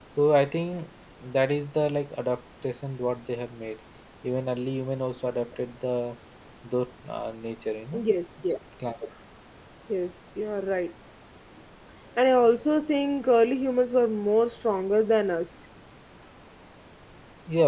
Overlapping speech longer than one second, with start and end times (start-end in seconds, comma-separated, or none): none